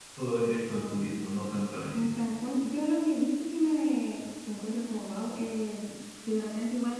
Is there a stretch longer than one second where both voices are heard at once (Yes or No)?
No